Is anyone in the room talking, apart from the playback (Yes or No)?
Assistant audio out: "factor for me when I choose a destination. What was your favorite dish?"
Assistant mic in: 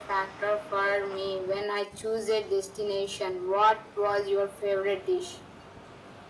No